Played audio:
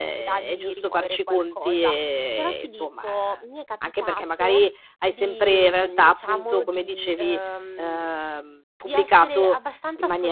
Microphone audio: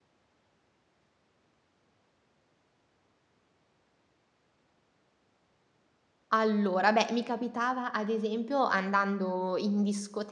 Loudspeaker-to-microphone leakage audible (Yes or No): No